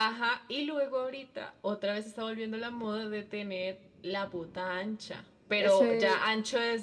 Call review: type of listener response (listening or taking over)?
listening